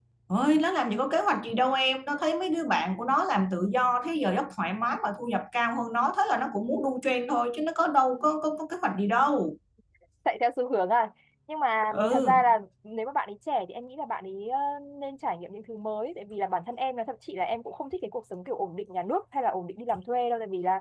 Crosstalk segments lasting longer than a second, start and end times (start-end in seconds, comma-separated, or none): none